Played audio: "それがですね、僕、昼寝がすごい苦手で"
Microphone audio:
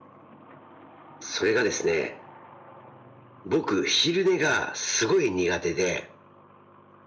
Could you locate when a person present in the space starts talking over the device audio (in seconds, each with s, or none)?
none